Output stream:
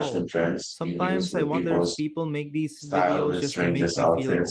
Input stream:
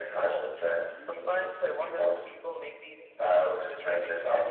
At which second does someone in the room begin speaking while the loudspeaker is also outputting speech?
none

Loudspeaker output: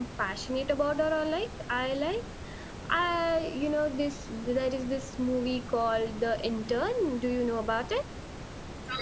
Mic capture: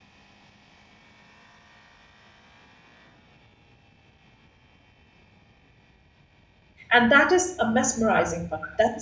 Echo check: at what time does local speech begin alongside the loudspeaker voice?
6.9 s

